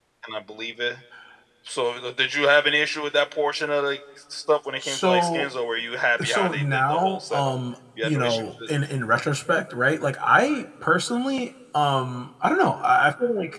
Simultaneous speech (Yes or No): Yes